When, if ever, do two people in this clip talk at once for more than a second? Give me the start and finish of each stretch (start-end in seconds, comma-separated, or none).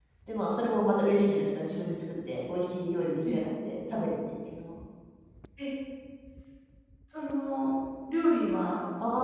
none